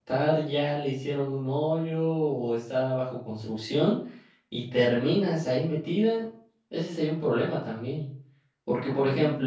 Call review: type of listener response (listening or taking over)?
listening